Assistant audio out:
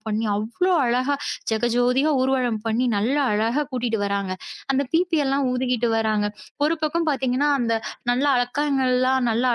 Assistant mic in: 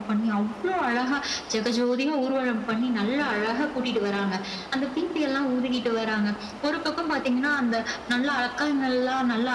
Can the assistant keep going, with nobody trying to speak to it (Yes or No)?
Yes